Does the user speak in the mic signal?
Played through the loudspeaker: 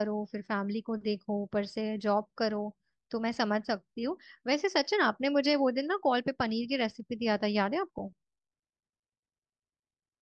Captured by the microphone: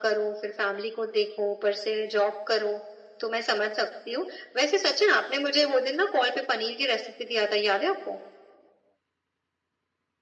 No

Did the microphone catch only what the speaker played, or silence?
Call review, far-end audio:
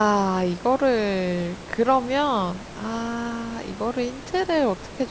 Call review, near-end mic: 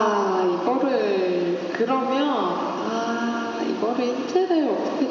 Yes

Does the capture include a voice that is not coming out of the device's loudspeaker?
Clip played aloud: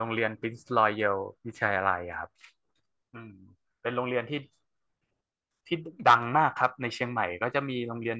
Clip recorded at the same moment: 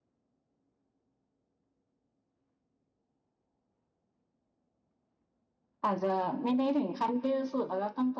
Yes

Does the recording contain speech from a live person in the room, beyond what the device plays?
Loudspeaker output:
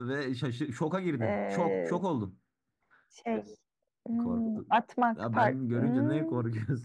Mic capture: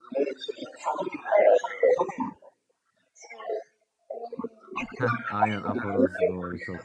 Yes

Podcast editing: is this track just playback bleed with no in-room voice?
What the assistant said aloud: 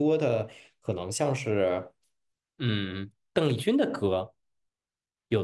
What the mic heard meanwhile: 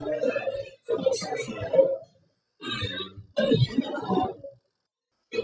Yes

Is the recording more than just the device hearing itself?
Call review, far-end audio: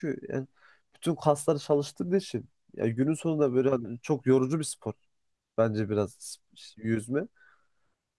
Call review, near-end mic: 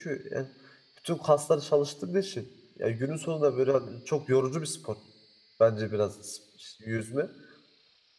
No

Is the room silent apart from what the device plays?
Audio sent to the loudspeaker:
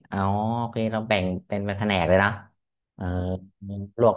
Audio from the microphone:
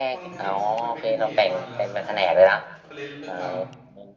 No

